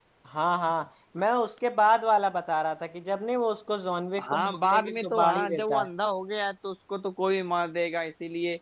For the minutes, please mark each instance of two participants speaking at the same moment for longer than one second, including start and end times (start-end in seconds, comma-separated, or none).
4.3-5.9